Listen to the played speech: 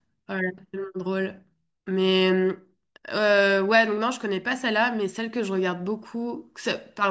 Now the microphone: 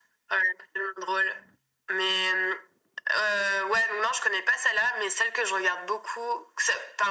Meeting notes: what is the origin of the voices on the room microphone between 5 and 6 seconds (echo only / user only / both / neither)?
echo only